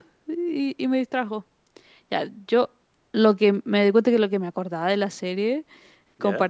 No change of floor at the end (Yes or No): Yes